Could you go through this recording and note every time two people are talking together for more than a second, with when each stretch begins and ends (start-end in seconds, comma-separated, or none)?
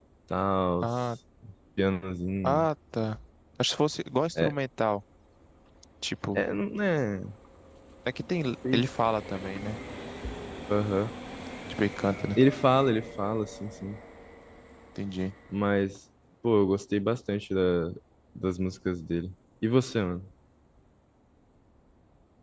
none